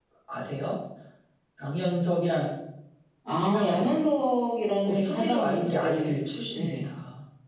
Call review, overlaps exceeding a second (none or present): present